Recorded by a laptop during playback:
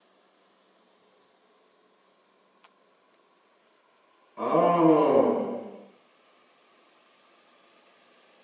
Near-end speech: present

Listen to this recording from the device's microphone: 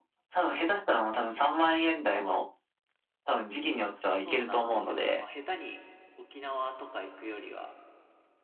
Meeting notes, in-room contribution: present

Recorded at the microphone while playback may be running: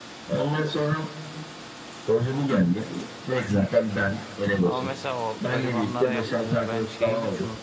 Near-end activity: present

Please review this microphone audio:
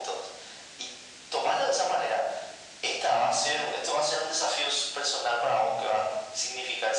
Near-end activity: none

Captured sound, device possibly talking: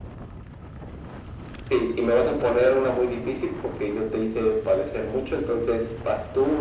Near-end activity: none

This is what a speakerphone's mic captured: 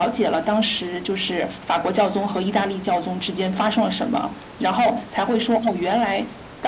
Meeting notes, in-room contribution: none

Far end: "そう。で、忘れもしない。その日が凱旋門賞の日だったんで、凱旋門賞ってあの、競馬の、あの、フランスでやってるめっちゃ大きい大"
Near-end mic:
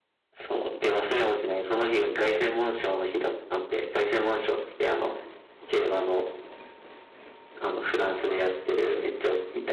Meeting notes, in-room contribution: none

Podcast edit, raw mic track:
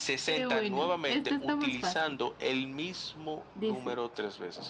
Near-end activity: none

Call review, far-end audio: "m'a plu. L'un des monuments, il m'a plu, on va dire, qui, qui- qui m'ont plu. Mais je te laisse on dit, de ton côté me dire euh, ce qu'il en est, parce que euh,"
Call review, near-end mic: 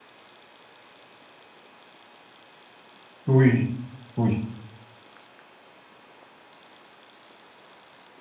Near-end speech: present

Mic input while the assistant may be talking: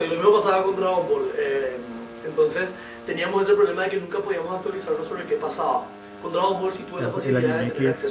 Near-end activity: present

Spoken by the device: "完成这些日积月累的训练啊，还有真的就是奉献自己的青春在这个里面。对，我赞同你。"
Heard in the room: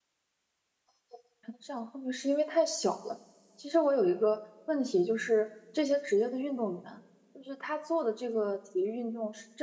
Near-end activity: present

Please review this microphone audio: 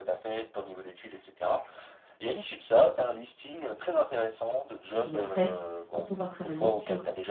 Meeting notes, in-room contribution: present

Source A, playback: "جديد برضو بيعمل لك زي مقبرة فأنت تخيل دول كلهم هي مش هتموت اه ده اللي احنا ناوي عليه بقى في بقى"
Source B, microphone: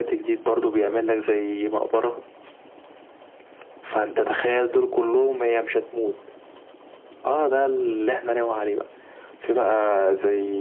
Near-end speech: none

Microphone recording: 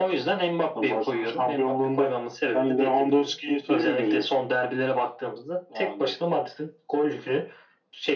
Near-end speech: none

